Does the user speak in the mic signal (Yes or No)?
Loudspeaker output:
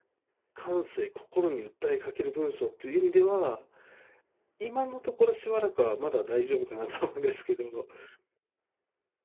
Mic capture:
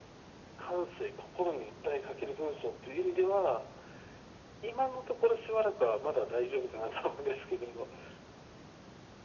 No